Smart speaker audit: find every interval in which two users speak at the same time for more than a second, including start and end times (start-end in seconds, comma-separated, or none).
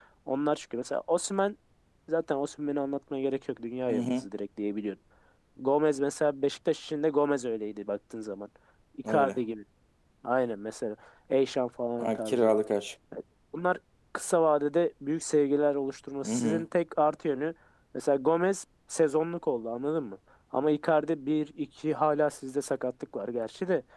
none